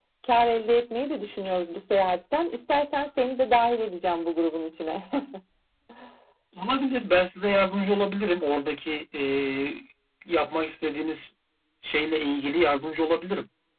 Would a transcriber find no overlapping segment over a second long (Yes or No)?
Yes